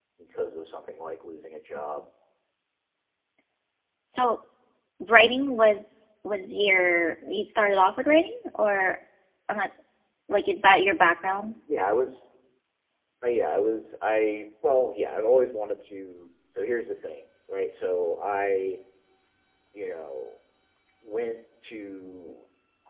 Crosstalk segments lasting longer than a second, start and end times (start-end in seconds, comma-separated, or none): none